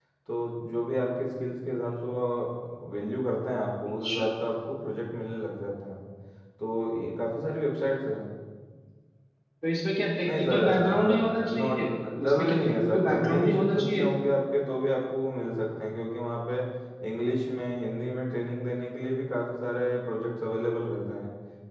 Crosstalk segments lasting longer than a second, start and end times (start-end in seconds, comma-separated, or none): 10.2-11.8, 12.3-14.1